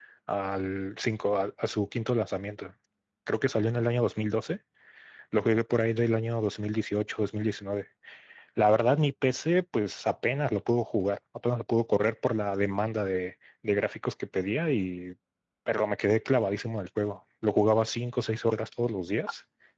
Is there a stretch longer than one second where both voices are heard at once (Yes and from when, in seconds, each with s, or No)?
No